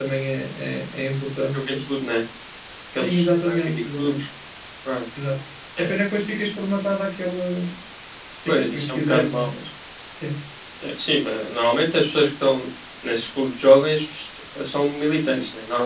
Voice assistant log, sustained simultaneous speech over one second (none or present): present